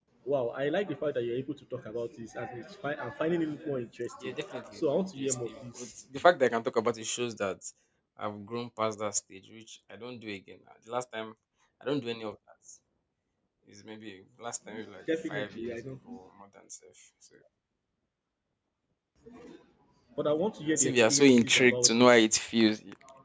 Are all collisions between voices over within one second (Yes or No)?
No